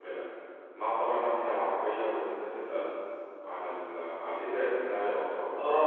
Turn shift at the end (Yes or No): Yes